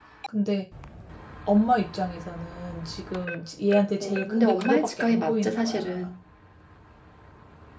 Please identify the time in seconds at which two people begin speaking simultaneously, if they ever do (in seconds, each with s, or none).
4.0 s